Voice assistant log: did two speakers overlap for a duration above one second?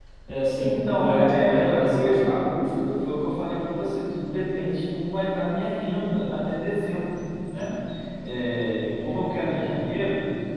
Yes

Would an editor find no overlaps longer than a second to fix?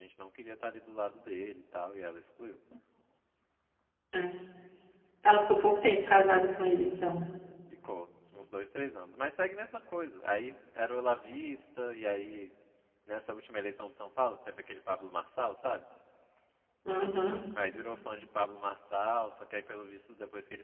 Yes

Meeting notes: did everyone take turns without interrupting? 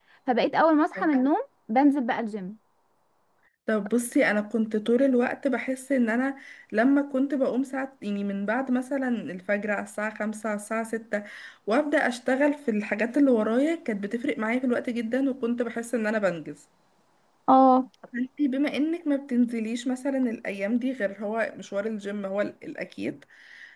Yes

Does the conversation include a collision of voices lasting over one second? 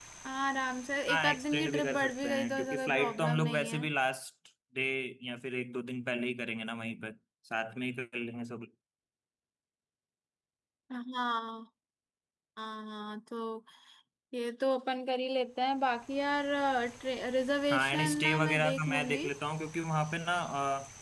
Yes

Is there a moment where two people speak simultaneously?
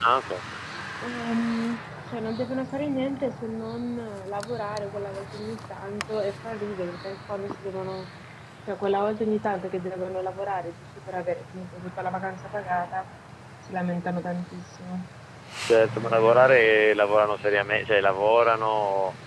No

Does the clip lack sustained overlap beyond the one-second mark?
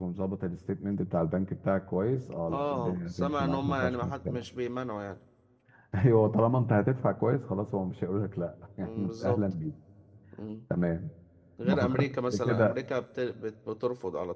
No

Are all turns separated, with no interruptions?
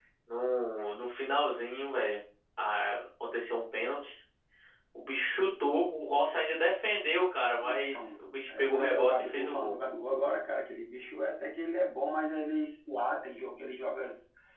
No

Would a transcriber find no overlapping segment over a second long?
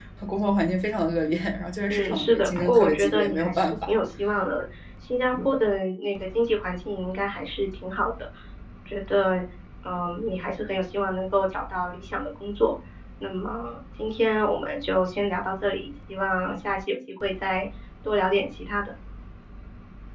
No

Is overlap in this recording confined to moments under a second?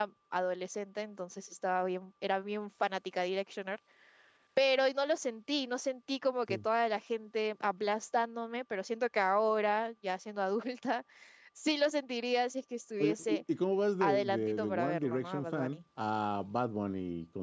No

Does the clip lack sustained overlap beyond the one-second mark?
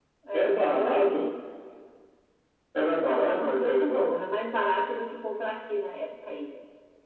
No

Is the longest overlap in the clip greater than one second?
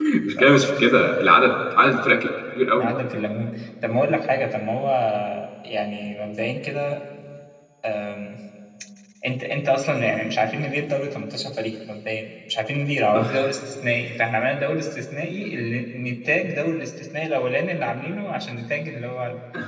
No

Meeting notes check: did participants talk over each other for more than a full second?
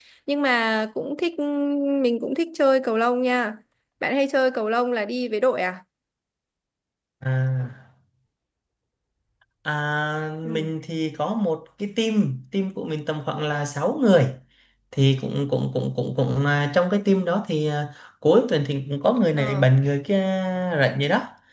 No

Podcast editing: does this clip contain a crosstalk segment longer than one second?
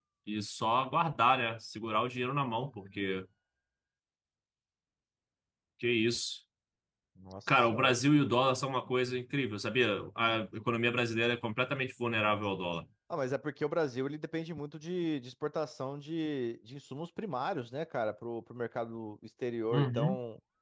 No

